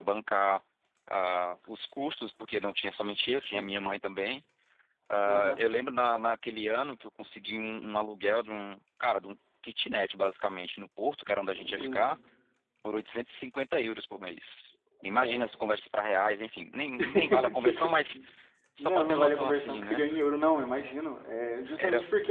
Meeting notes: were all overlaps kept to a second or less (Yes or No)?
No